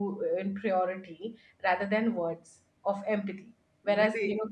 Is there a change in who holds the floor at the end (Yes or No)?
No